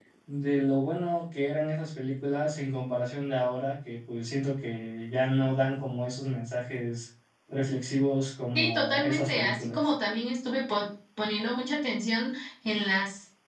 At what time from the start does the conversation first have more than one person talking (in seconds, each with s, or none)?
8.6 s